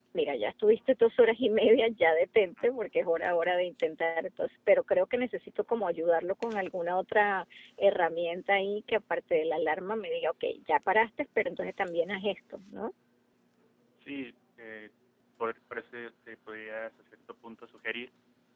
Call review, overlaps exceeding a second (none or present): none